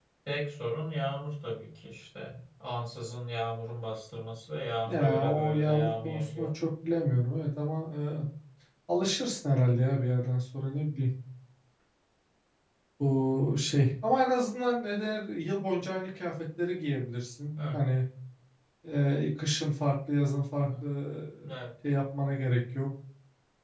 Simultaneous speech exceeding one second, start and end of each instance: 4.8-6.5

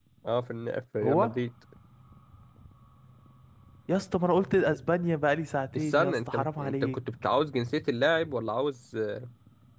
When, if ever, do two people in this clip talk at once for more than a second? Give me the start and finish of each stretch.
5.8-7.0

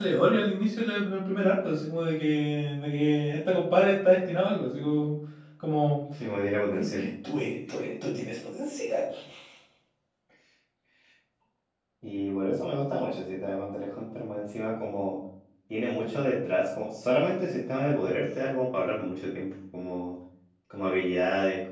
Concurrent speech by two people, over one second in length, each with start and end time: none

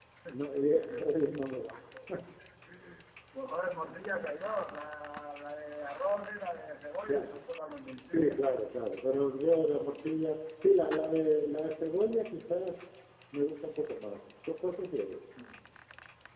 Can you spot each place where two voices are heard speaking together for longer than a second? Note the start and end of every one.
none

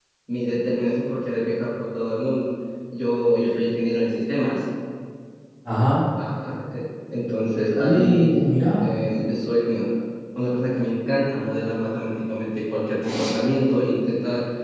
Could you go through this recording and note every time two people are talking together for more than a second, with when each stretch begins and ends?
none

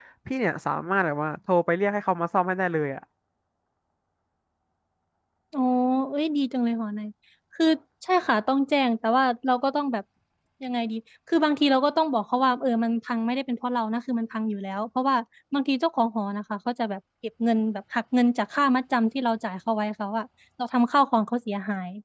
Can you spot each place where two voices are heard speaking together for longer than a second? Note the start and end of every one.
none

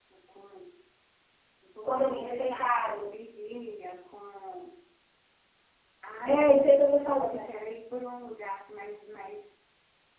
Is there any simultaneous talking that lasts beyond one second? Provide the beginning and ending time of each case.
1.8-3.0, 6.2-7.5

